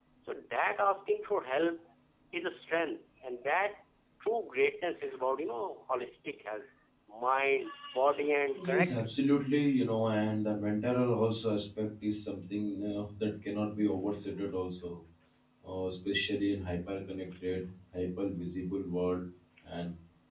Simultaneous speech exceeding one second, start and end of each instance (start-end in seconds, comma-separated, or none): none